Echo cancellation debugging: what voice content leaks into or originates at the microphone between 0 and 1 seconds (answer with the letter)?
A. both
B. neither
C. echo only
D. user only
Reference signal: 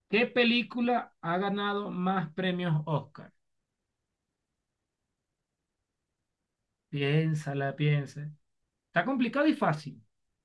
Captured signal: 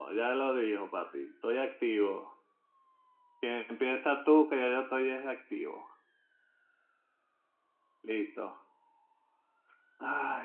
D